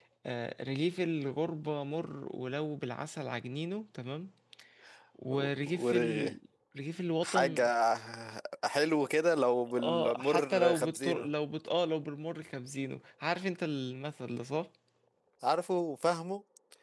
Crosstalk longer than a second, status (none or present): present